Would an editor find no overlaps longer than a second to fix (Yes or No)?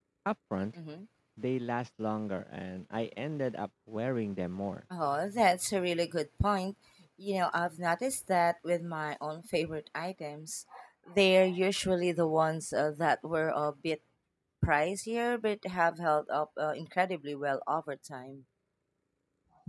Yes